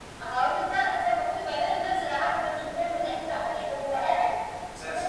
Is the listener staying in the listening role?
Yes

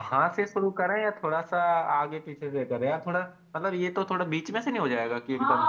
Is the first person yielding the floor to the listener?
Yes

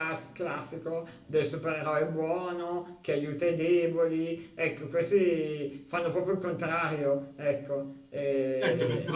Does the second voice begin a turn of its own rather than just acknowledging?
Yes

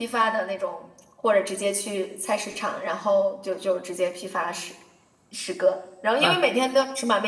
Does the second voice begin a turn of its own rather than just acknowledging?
No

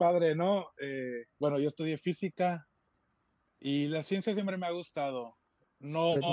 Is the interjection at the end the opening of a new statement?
No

